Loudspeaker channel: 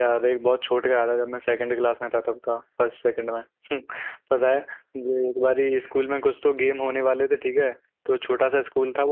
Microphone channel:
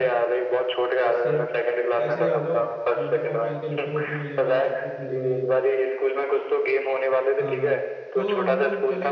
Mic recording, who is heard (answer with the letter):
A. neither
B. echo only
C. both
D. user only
C